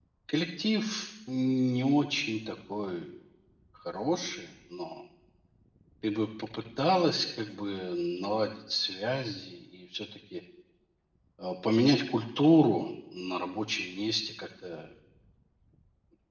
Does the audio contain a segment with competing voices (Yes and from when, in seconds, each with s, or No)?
No